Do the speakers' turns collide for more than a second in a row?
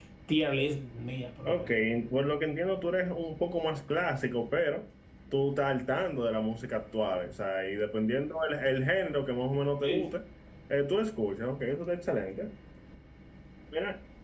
No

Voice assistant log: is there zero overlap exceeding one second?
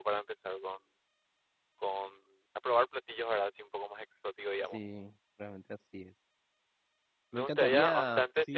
No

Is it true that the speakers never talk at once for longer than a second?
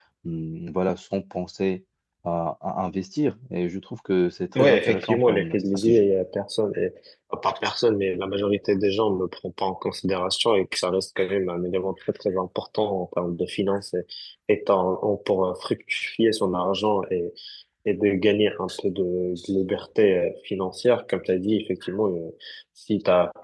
No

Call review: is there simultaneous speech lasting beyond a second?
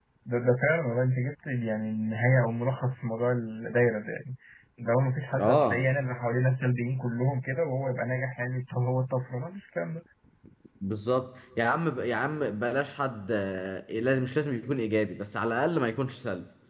No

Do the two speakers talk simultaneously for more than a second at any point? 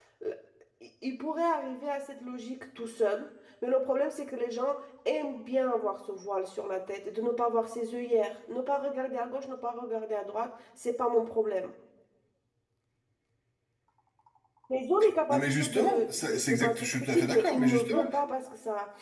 Yes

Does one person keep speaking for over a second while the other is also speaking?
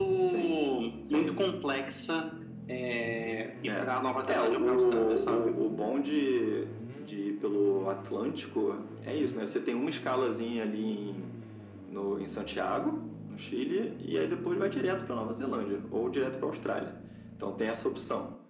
Yes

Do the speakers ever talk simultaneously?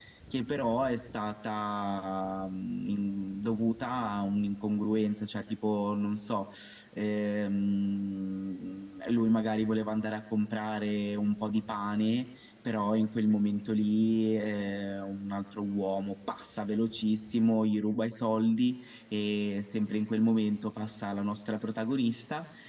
No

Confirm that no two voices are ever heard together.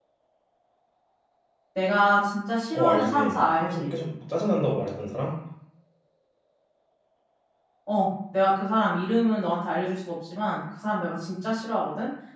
No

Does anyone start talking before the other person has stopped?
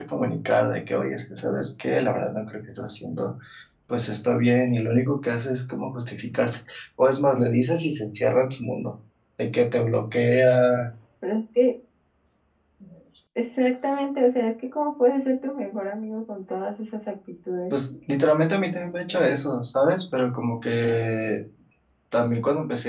No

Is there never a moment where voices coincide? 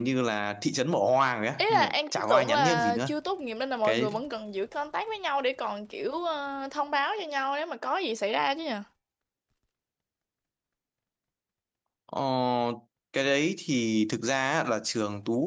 No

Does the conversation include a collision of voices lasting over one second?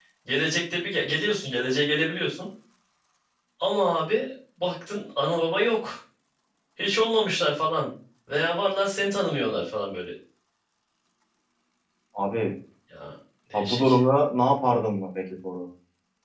No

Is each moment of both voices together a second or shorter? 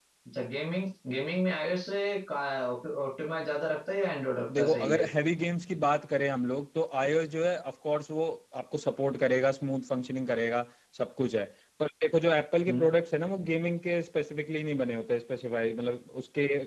Yes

